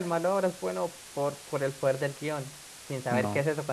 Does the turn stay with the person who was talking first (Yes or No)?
Yes